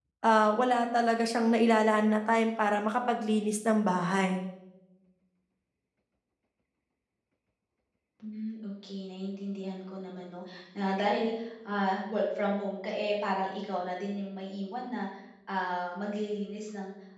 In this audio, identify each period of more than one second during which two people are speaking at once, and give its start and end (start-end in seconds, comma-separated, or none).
none